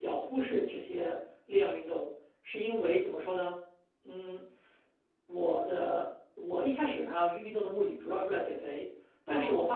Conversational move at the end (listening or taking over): listening